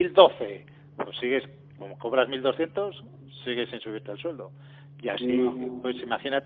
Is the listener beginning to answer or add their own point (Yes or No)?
No